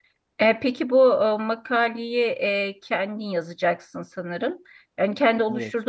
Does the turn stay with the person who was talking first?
Yes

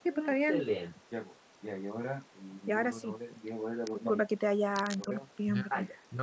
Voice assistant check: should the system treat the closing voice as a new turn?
Yes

